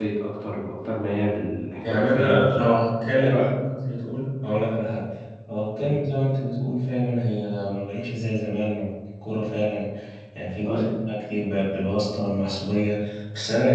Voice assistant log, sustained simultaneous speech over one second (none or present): present